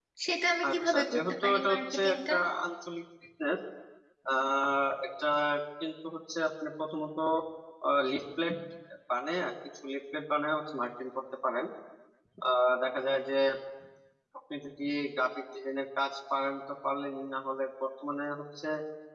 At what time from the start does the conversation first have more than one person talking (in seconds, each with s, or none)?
0.7 s